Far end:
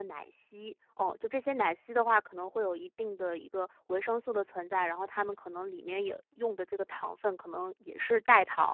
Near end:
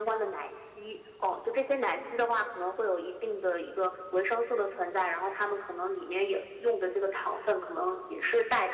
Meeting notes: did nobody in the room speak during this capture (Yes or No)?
Yes